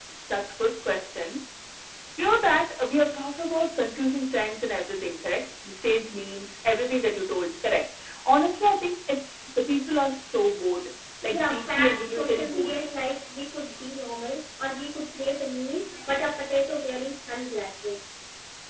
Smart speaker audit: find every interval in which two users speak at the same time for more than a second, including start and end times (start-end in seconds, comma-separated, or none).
11.3-12.8